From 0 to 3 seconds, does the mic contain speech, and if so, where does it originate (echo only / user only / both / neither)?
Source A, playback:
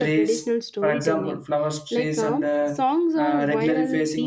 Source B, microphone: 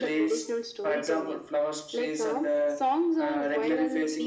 echo only